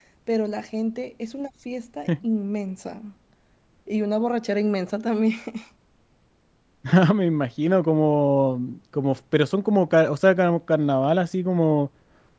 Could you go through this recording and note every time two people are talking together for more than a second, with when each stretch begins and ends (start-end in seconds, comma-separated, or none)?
none